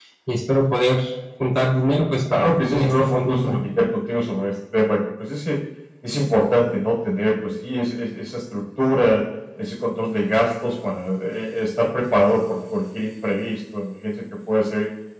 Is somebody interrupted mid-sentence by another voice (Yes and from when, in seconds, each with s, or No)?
Yes, from 2.3 s